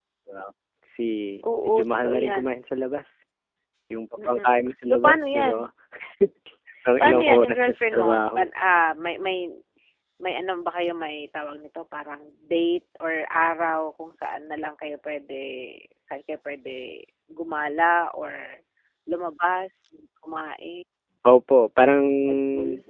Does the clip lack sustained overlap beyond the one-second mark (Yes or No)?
No